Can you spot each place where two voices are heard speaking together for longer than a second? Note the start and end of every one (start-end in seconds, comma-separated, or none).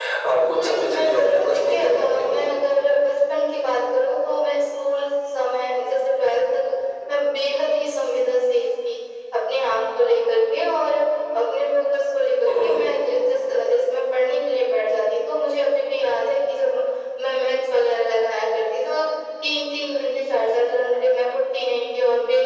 0.5-2.3